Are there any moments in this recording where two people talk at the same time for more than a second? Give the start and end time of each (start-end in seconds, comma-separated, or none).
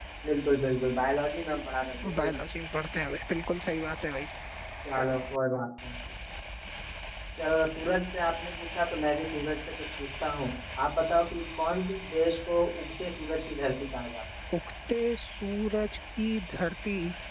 none